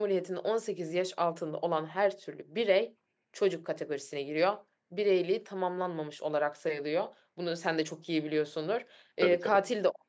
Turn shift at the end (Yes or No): No